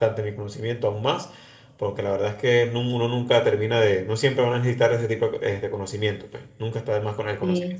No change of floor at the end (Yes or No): No